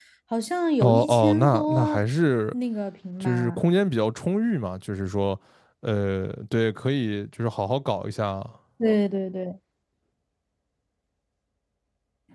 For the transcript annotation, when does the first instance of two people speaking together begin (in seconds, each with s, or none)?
0.8 s